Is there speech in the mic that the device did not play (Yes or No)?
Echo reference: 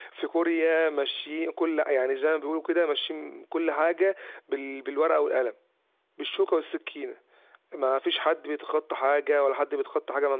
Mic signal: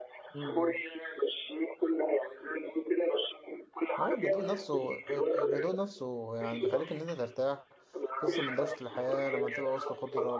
Yes